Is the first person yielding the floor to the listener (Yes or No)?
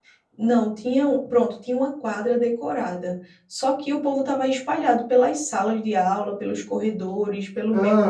Yes